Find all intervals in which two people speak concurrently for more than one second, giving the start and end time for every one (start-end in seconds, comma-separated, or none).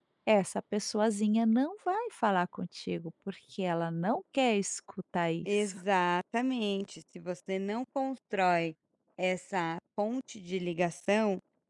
none